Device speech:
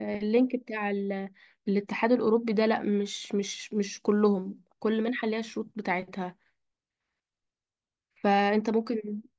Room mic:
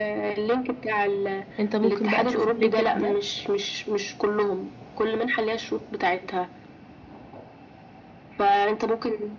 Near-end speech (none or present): present